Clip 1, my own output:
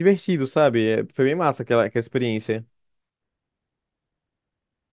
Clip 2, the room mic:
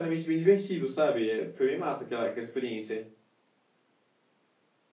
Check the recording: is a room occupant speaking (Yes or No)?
No